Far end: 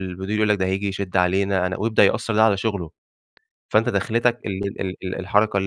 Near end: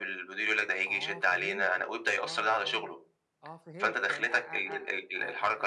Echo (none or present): present